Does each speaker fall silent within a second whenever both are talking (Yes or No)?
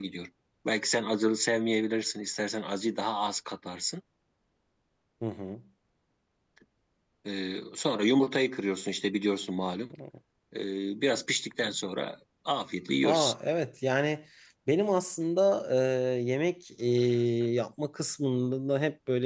Yes